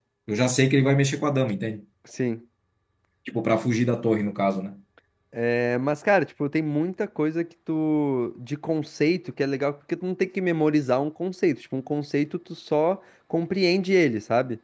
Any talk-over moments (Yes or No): No